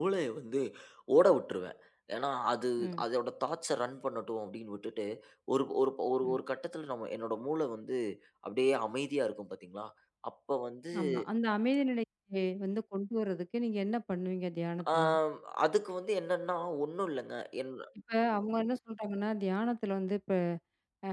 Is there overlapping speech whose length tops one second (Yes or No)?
No